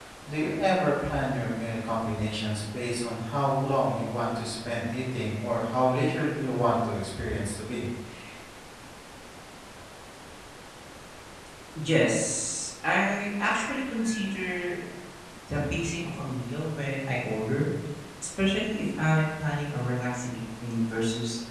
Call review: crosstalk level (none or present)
none